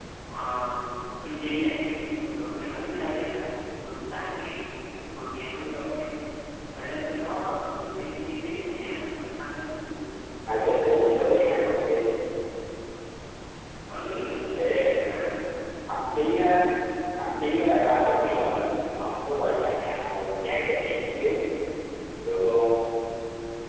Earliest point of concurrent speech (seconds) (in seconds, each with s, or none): 10.5 s